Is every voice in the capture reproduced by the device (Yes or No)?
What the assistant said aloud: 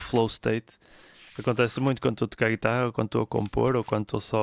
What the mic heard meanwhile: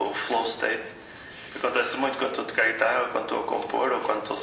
Yes